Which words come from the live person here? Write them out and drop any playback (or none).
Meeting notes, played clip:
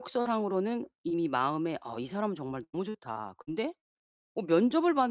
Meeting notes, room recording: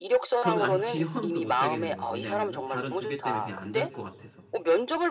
저는 아예 지원도 못 하겠는 거예요. 왜냐하면은 다른 2 개 때문에 그냥 안 될 것 같아서.